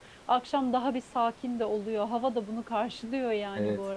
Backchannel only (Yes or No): No